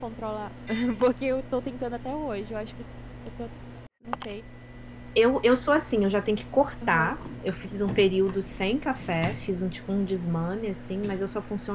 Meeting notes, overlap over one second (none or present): none